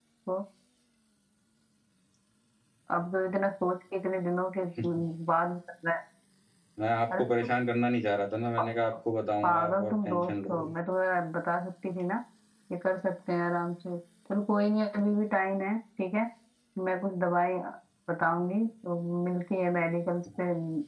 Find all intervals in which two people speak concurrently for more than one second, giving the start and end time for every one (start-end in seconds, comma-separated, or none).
9.4-10.7